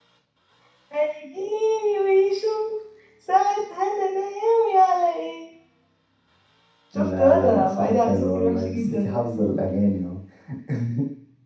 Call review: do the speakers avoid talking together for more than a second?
No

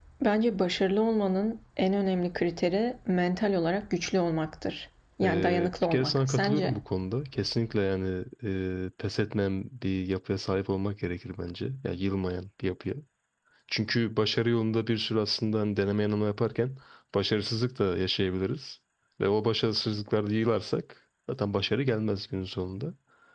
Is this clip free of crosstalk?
No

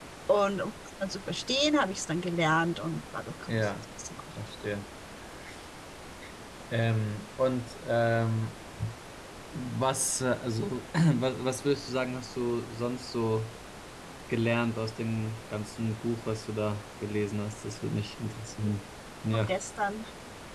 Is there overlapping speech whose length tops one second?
No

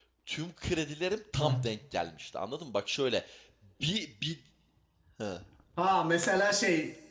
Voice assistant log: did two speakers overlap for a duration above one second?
No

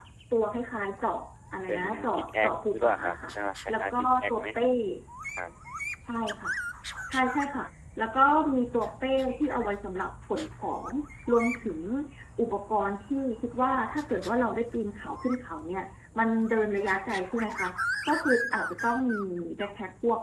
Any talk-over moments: Yes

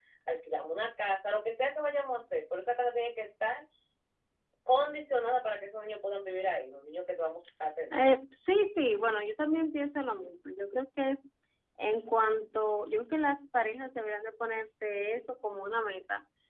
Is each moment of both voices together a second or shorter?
Yes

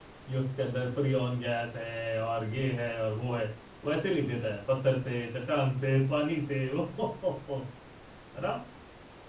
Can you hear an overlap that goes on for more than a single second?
No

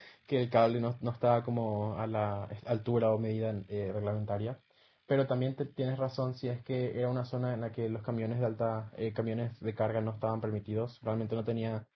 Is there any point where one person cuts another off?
No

